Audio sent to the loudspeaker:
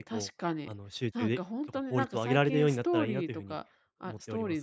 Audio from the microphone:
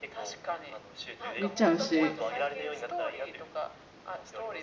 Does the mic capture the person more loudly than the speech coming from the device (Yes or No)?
Yes